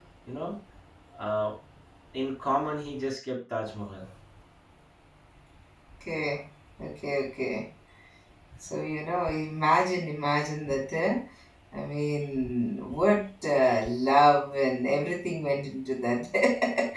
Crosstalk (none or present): none